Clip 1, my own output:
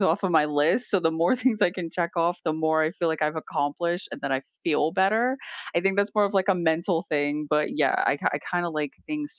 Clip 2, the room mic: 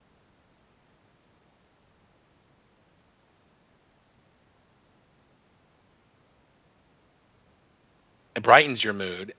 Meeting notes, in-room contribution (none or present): present